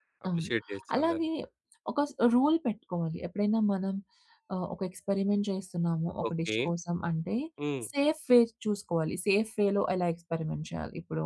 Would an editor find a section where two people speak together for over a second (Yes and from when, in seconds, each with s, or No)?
No